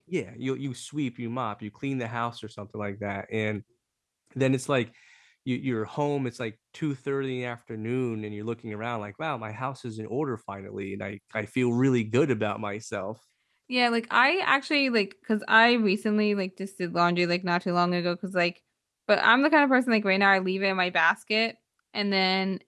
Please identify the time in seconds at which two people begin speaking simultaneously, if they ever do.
none

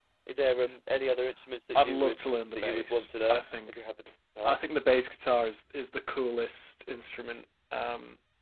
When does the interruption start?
1.8 s

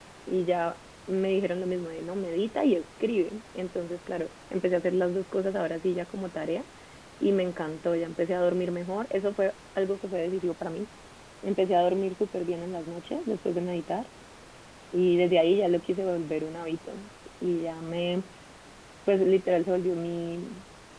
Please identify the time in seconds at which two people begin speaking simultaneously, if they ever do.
none

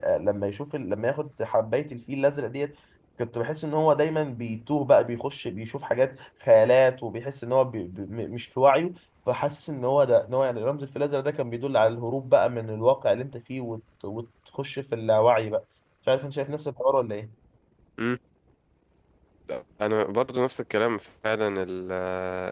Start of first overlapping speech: none

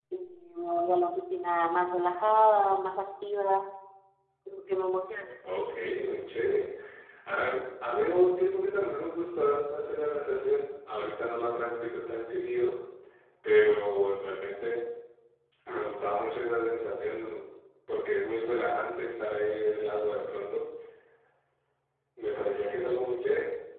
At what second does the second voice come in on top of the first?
none

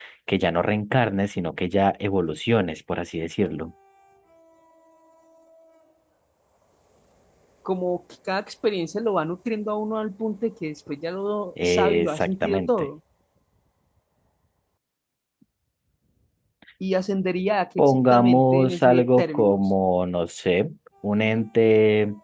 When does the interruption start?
11.6 s

